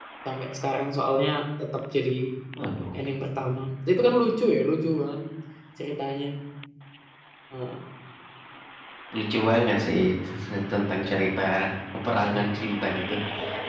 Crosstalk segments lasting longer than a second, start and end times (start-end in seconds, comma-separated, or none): none